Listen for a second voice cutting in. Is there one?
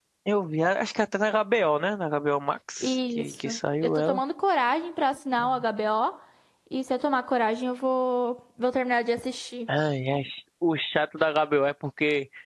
Yes, from 2.8 s

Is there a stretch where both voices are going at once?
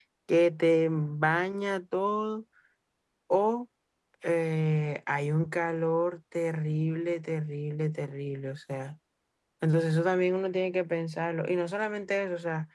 No

